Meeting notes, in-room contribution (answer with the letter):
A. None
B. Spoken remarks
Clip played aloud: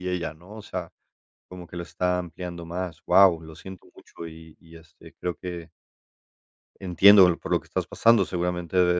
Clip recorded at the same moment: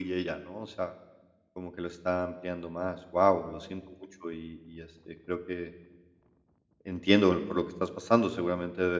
A